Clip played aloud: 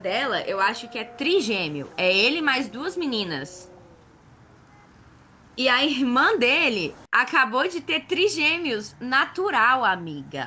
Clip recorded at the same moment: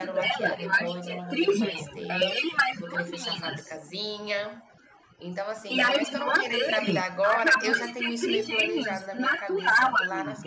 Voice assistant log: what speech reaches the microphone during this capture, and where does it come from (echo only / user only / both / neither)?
both